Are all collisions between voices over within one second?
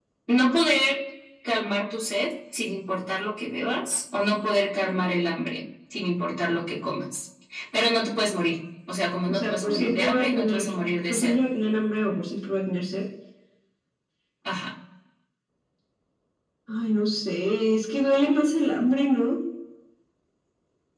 No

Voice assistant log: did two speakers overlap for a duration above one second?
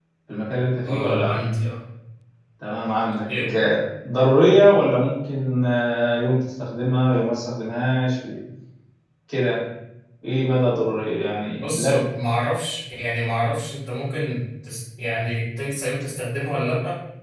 No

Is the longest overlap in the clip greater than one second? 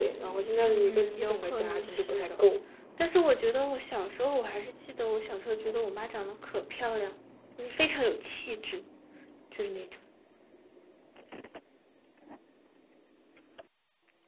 Yes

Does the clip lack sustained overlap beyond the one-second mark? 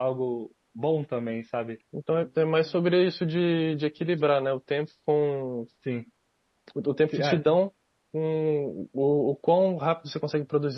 Yes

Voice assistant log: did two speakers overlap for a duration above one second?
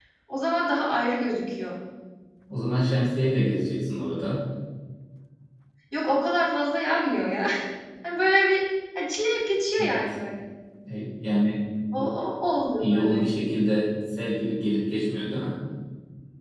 No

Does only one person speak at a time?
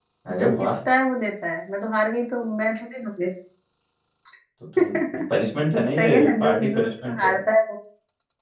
No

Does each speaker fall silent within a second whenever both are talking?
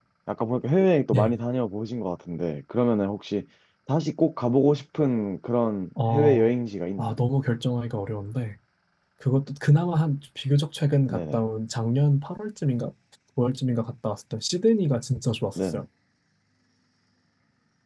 Yes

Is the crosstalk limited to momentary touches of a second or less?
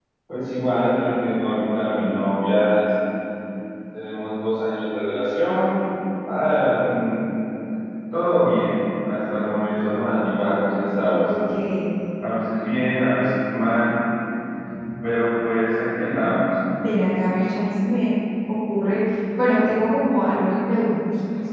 Yes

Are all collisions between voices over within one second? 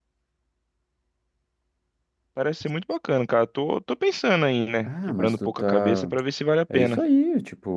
No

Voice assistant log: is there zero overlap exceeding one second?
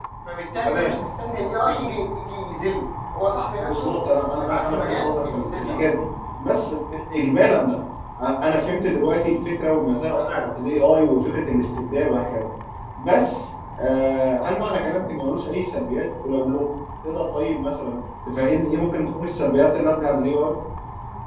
No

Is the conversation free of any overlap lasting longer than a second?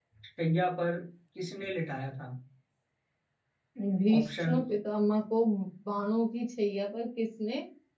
Yes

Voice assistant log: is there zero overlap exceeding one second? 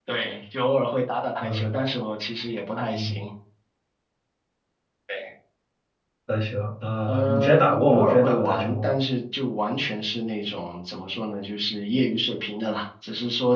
No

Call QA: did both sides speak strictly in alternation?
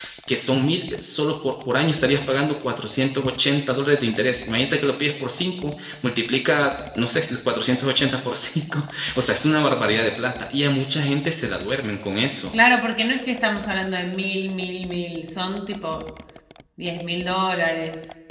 Yes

